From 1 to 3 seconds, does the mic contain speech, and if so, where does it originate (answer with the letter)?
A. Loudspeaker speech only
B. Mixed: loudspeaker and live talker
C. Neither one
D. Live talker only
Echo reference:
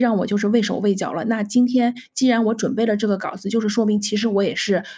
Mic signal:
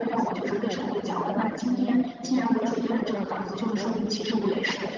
B